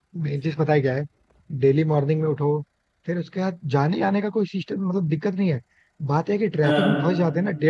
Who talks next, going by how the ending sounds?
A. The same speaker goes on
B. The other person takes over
A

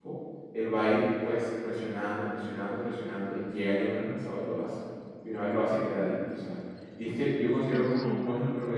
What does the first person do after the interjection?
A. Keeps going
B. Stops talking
A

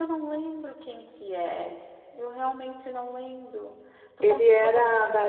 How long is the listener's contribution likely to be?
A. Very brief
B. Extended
B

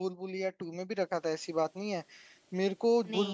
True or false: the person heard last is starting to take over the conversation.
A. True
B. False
B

